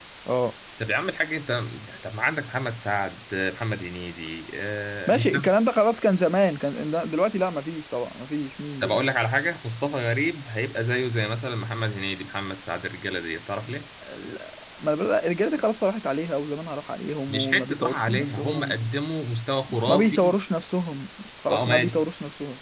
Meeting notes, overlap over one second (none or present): present